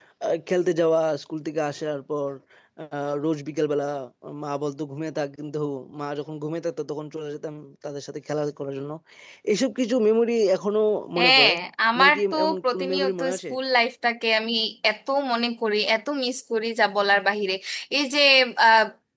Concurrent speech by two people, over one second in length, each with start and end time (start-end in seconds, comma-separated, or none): 12.0-13.4